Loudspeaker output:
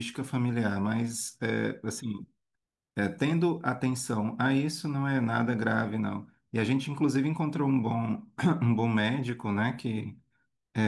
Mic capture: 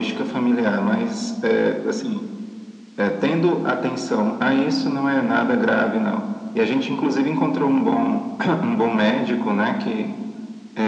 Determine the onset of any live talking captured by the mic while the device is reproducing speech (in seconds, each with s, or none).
none